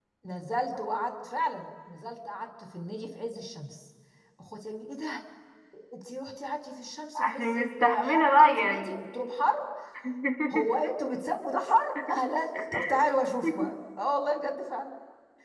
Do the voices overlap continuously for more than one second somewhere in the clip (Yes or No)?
Yes